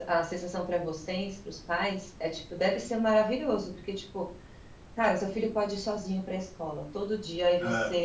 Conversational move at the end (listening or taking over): listening